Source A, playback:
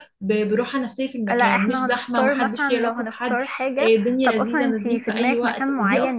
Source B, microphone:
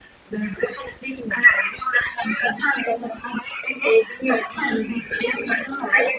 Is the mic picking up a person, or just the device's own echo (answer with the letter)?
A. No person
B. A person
A